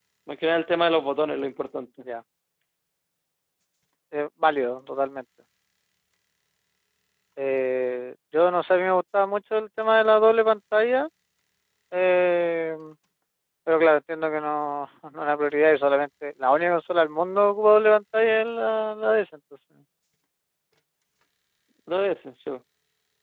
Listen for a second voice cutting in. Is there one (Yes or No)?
No